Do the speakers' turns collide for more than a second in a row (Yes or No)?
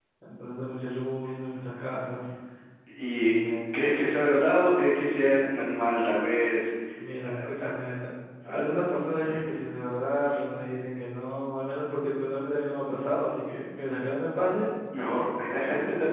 No